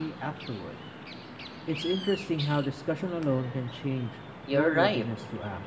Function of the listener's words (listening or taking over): taking over